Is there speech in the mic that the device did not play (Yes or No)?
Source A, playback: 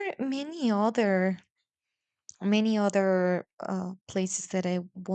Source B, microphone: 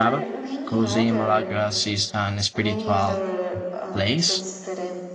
Yes